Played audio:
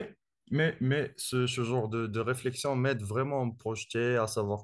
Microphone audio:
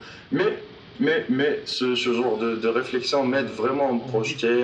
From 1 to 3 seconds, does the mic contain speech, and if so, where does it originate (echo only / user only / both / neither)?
echo only